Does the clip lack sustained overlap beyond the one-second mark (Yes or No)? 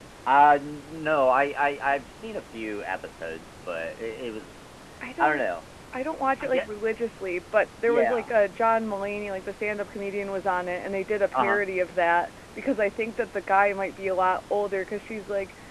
Yes